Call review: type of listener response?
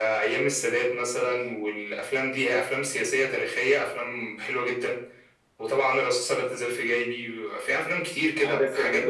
taking over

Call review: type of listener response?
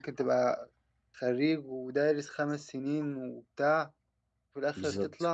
listening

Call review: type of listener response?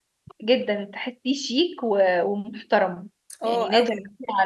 listening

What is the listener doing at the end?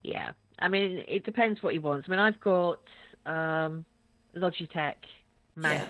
listening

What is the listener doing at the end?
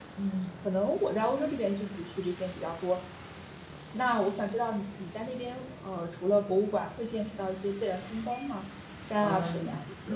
taking over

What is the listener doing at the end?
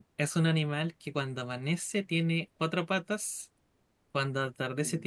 listening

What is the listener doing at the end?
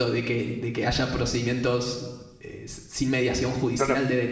taking over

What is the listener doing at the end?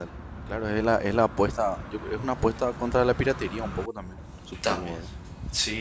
taking over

